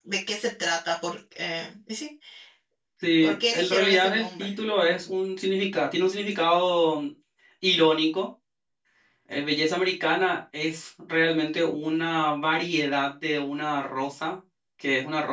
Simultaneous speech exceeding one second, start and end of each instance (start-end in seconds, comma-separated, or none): 3.2-4.5